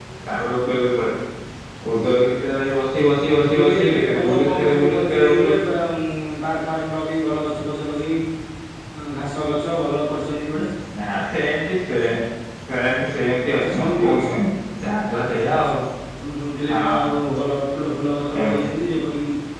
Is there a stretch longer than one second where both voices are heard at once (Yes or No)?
Yes